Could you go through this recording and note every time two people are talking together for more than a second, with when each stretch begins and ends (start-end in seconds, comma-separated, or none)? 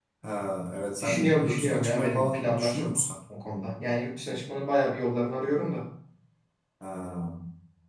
1.0-2.9